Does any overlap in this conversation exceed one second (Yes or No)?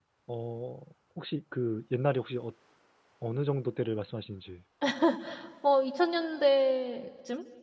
No